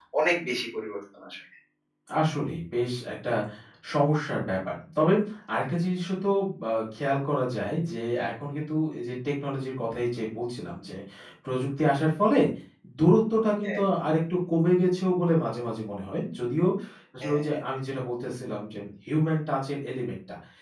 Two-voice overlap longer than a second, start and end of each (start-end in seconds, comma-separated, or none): none